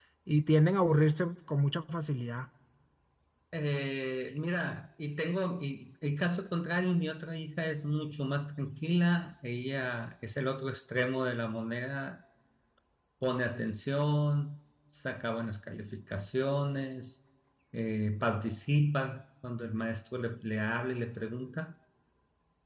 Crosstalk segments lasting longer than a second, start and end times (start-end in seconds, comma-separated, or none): none